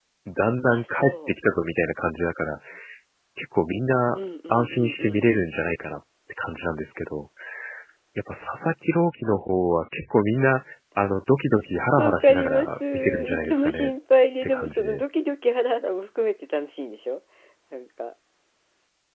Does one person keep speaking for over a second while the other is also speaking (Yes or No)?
Yes